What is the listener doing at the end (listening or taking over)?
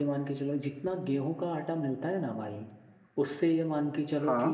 listening